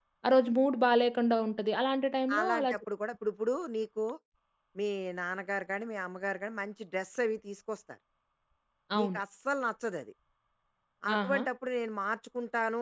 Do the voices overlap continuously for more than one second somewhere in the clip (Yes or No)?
No